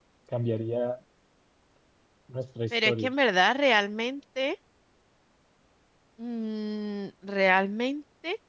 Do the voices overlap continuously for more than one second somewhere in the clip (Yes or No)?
No